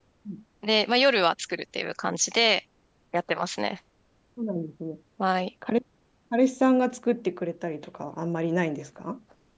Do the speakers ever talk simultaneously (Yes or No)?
No